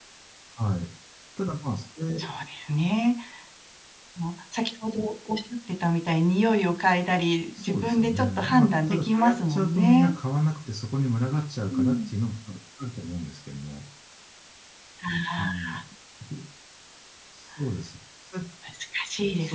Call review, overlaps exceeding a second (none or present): present